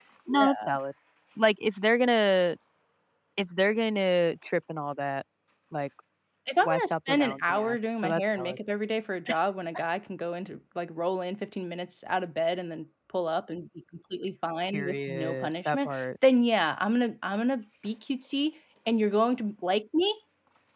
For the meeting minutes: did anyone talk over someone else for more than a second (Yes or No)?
Yes